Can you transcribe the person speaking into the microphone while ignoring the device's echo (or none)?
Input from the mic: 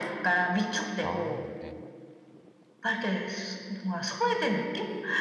아 네.